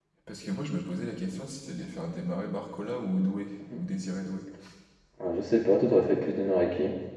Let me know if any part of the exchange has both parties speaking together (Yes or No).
No